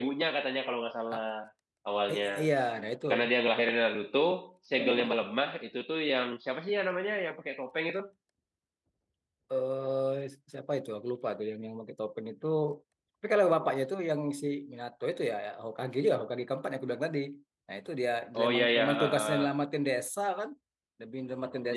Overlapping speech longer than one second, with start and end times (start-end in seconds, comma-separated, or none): 18.3-19.5